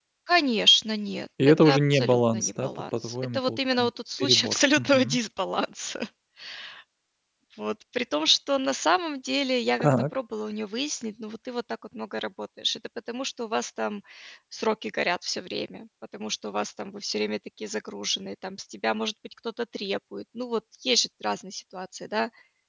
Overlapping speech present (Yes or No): Yes